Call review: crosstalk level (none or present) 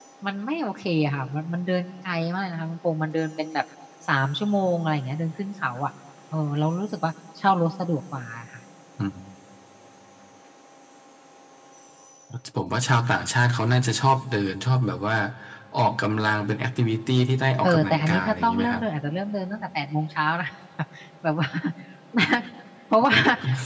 present